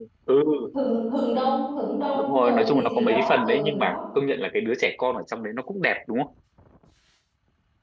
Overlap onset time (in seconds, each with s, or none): 2.1 s